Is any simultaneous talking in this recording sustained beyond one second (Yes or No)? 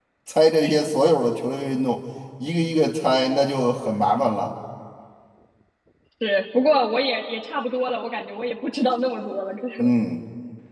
No